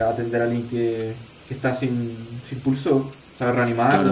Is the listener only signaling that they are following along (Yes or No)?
No